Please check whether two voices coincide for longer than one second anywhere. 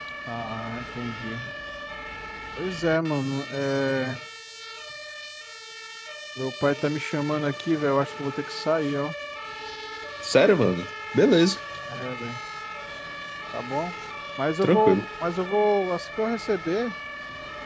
No

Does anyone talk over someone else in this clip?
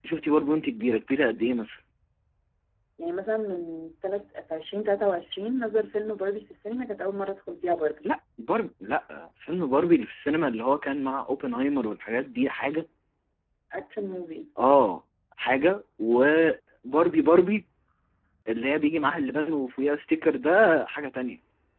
No

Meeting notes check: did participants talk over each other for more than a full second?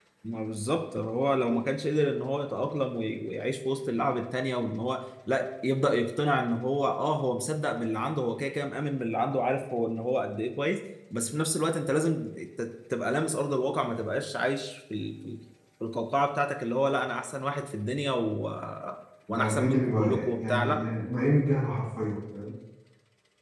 Yes, from 19.3 s

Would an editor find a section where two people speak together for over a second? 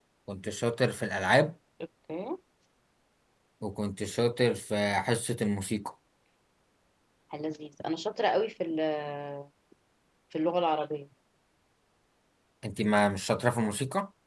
No

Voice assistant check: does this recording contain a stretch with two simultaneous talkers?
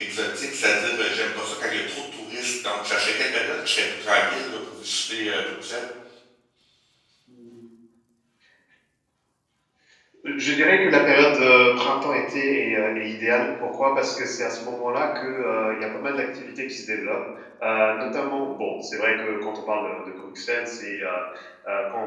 No

